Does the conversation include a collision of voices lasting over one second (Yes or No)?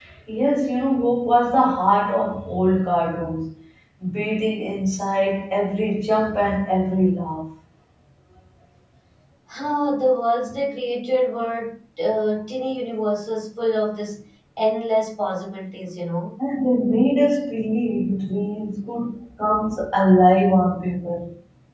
No